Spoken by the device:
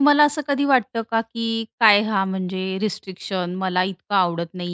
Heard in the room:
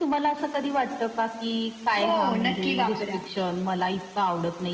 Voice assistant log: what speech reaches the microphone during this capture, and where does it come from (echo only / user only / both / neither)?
both